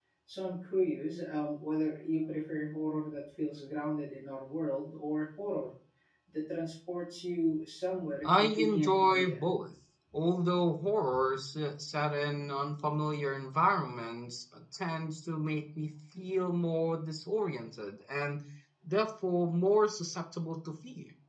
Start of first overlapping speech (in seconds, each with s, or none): 8.2 s